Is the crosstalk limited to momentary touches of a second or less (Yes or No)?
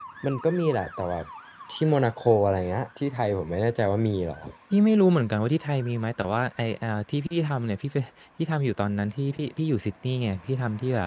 Yes